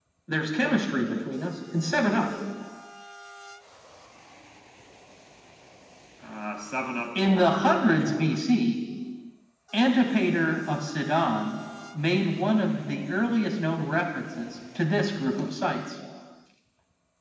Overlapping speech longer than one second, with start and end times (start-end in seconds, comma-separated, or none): 7.2-8.4